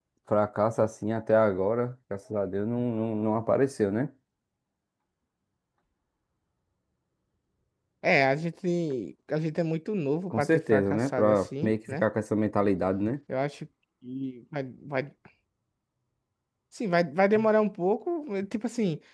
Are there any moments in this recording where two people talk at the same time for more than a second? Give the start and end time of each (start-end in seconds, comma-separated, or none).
10.3-12.0